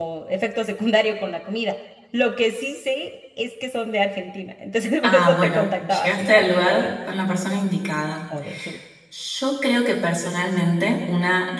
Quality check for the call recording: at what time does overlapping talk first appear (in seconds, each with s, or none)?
5.0 s